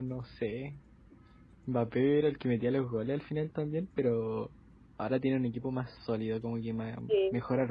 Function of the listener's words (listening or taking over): listening